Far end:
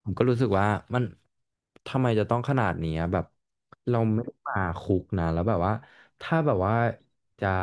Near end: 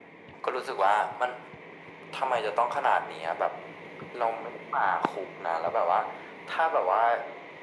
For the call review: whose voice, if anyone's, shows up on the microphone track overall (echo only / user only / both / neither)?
echo only